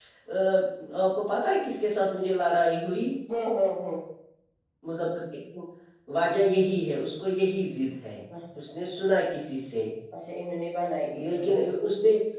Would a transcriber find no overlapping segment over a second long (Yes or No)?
Yes